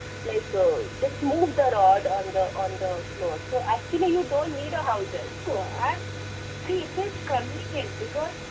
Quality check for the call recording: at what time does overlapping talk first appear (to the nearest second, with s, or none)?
none